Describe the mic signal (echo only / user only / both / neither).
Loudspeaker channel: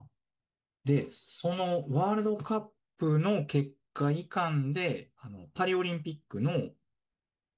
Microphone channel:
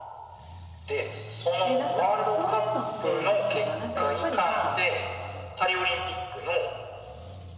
both